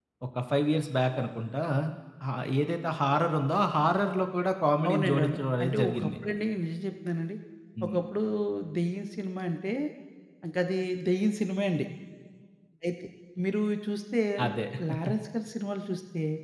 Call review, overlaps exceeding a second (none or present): present